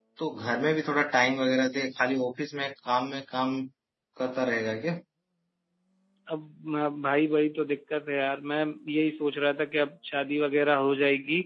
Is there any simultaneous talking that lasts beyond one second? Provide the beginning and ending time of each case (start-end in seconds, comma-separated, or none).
none